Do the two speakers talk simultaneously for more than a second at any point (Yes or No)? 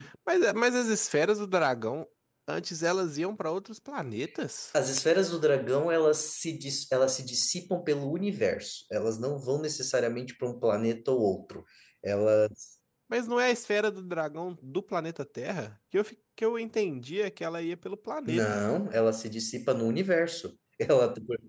No